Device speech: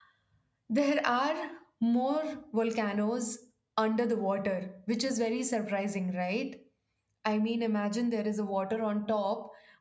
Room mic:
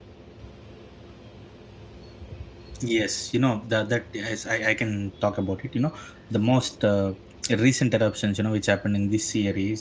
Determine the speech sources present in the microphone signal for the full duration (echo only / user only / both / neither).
user only